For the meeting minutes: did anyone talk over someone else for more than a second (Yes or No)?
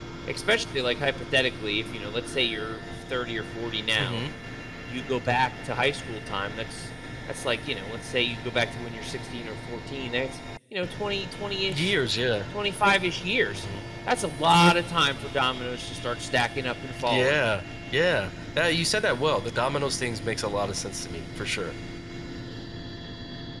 No